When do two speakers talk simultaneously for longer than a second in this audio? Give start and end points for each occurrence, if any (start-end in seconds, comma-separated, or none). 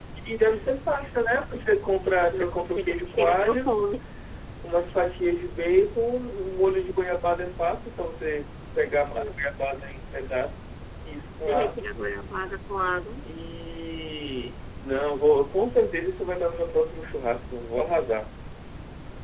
2.3-3.7